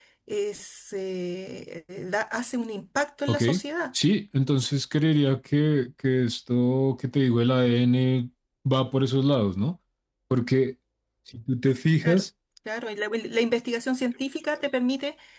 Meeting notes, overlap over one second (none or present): none